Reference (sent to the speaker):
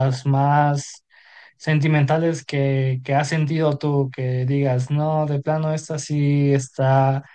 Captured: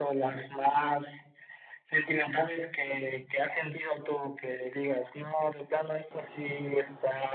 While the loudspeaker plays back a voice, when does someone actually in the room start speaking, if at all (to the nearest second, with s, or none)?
none